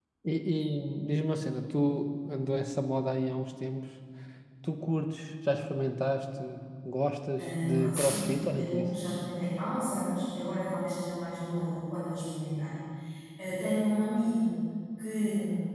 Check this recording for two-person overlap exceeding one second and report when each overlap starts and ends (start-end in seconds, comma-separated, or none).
7.4-8.9